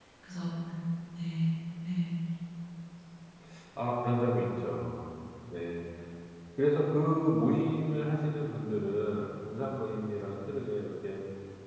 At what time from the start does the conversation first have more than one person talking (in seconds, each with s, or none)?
none